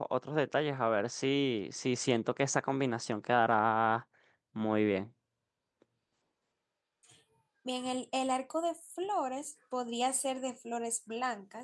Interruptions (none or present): none